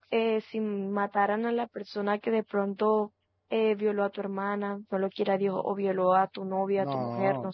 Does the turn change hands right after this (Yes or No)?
Yes